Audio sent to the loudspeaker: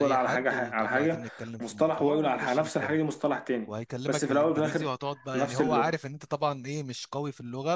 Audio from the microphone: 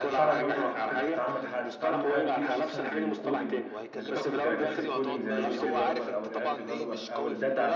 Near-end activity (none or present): present